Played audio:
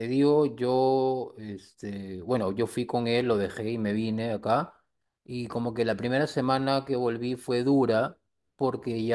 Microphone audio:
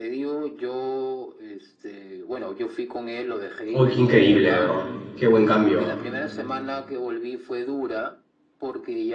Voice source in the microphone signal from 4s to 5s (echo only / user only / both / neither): both